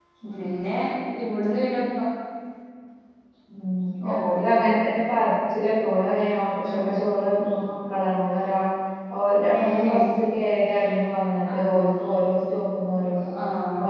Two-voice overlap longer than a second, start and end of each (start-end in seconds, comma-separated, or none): none